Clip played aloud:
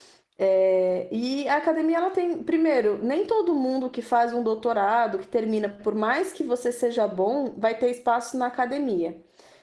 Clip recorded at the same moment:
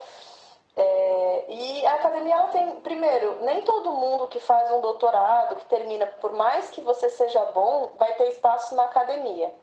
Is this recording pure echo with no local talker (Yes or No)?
Yes